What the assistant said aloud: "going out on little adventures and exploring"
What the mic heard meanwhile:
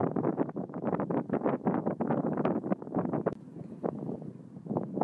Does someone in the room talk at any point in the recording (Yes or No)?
No